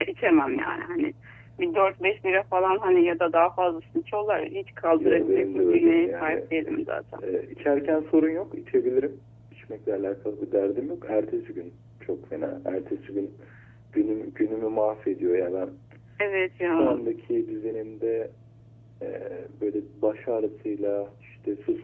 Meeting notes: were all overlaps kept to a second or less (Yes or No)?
No